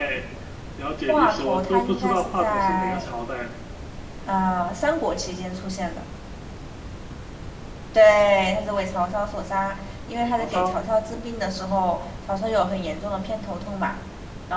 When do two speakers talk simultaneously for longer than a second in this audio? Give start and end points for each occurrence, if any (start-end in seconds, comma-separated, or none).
1.1-3.2